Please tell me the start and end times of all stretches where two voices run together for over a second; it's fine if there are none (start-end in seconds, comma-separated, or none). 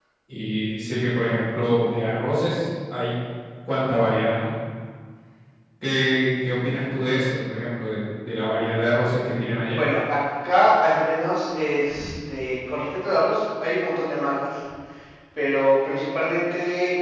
none